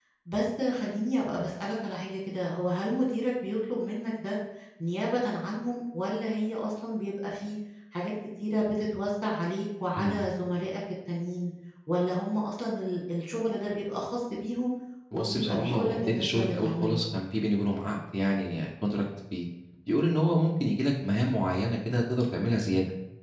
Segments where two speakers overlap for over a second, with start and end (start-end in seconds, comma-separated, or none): 15.1-17.0